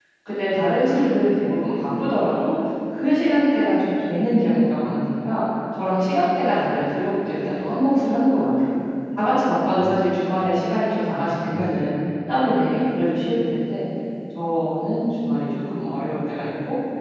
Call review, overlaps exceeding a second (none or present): none